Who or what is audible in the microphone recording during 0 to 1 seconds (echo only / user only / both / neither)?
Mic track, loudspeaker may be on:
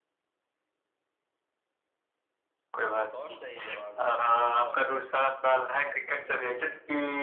neither